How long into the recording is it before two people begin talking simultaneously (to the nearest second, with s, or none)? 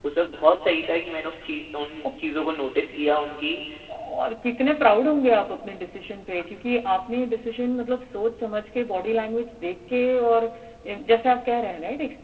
none